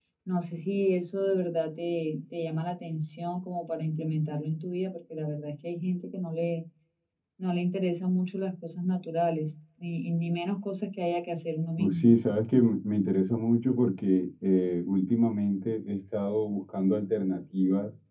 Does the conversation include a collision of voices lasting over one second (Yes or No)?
No